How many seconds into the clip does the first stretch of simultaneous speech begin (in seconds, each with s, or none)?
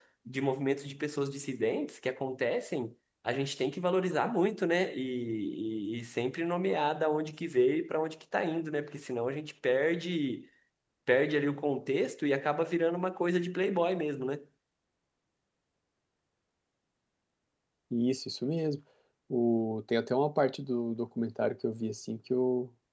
none